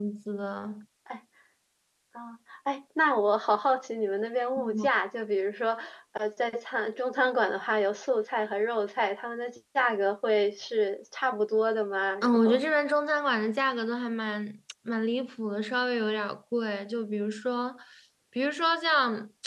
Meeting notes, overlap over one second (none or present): none